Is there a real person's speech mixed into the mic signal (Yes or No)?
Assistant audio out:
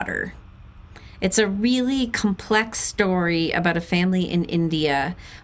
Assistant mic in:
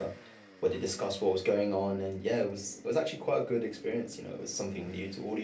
Yes